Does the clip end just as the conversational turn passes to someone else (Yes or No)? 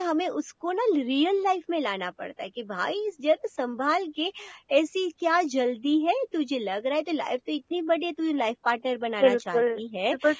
Yes